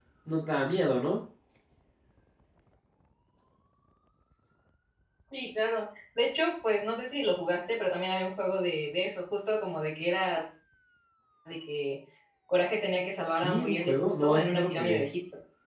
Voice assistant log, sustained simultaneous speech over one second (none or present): present